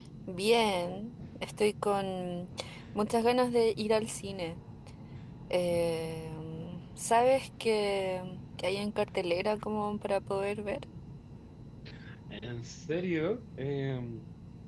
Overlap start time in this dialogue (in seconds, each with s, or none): none